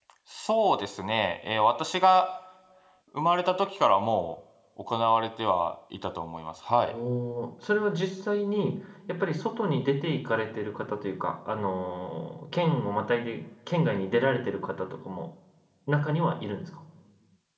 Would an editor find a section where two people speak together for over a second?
No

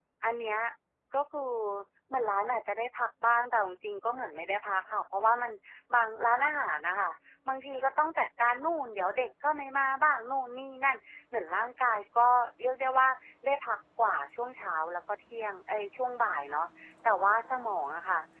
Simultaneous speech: No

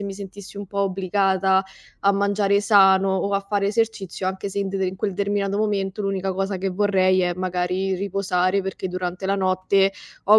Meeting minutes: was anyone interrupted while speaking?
No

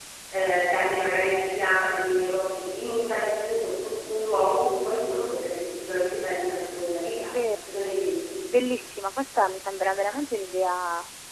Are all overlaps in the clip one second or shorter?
Yes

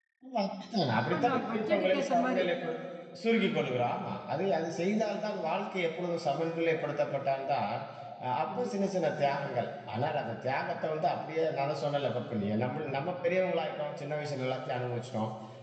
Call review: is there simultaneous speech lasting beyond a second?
Yes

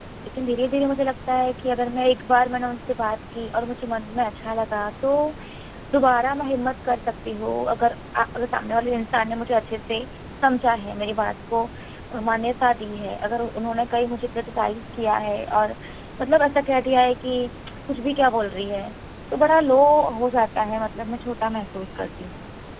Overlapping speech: No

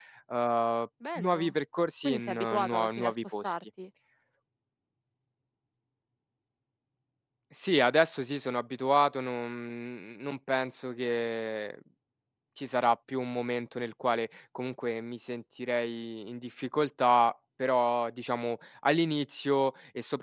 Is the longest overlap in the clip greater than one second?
Yes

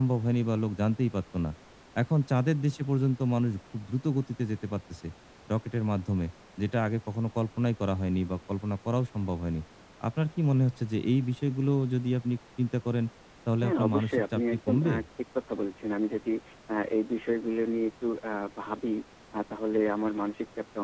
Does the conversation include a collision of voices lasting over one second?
Yes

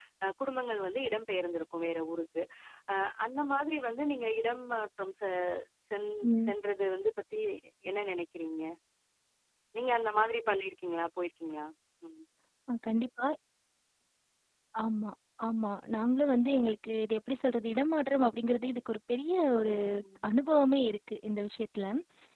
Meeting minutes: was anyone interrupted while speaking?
No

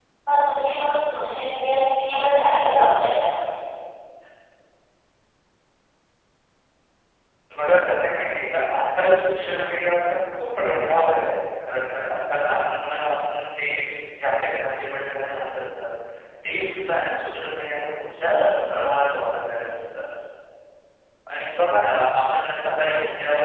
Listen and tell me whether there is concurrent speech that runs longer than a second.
No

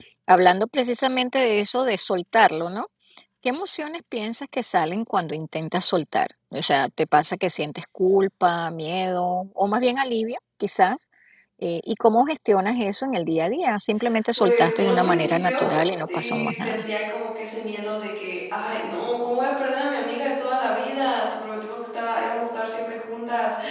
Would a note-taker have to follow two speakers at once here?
Yes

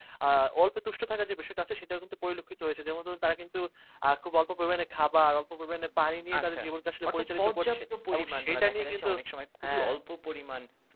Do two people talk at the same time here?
Yes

